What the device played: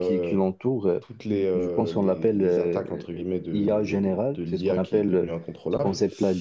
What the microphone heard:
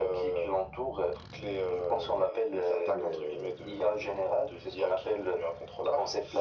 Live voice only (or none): de du coup, euh,